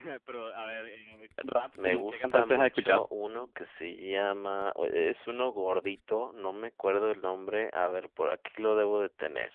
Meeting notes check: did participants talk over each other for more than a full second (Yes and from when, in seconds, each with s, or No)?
Yes, from 1.8 s